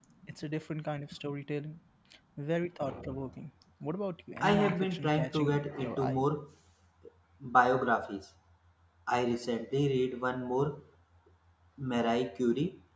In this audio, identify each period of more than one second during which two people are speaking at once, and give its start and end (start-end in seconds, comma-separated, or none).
4.5-6.2